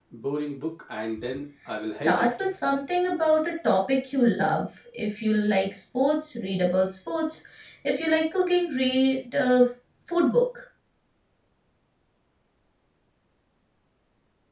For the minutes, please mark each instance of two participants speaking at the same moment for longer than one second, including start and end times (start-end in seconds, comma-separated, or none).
none